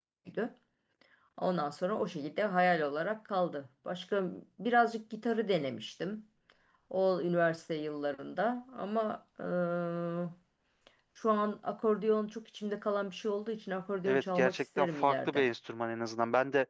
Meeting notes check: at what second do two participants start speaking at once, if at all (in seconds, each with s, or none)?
14.1 s